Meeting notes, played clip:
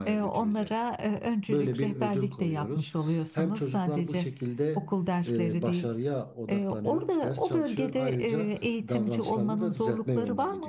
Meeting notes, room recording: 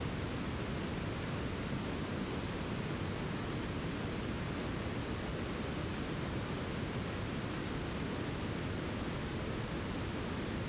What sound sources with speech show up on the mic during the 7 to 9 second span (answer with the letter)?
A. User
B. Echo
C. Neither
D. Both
C